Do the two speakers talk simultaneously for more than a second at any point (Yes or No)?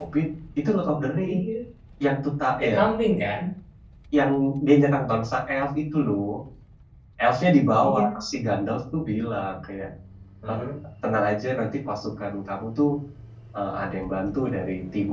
No